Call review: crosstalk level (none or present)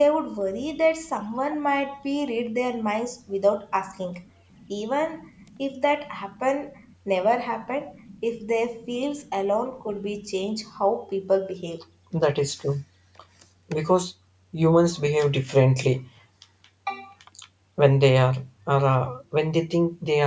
none